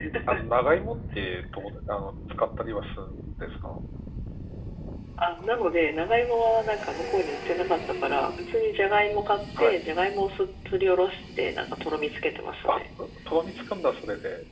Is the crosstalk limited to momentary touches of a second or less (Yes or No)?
Yes